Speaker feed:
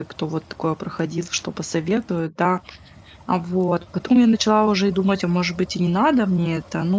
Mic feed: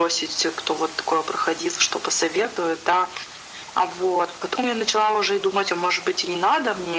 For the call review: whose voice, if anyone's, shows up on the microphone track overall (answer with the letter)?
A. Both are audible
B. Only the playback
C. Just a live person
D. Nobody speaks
B